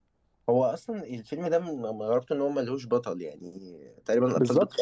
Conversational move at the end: taking over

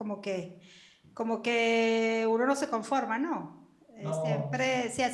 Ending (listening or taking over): listening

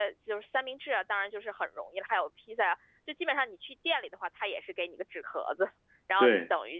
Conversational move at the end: listening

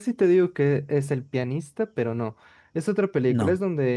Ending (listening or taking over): listening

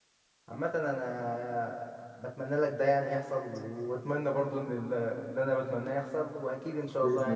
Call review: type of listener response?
taking over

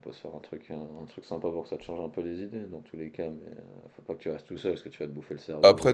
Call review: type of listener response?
taking over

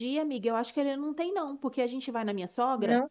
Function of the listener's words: listening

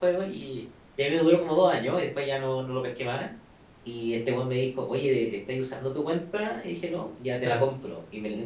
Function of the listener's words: listening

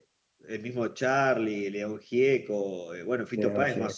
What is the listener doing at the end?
listening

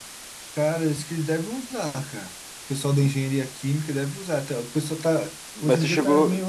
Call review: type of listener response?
taking over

